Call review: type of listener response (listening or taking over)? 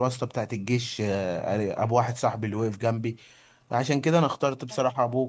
listening